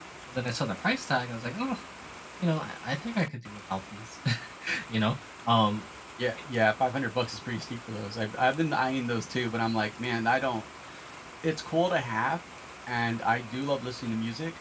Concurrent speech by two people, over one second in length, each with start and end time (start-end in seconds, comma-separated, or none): none